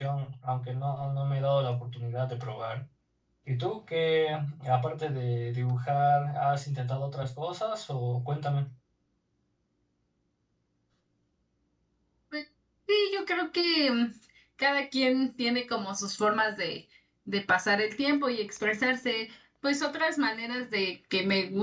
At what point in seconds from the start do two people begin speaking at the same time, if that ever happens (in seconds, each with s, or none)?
none